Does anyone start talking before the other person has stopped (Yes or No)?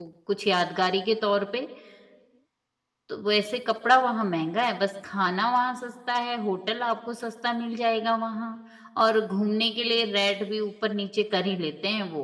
No